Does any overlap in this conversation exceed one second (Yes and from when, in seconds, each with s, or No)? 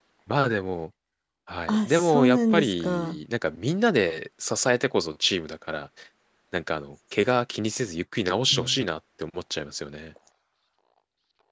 Yes, from 1.7 s